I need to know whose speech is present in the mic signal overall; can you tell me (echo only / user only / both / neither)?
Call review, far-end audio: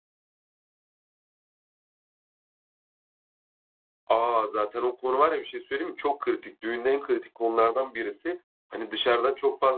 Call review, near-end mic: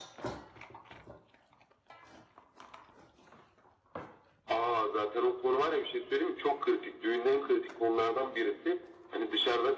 echo only